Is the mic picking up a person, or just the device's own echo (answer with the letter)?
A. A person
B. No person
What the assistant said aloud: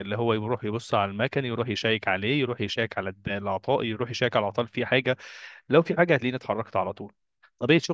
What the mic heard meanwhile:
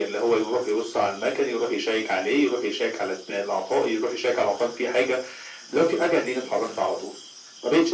B